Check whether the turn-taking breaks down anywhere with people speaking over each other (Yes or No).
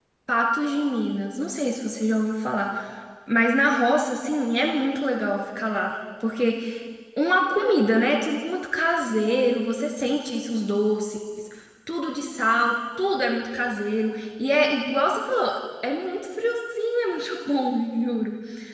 No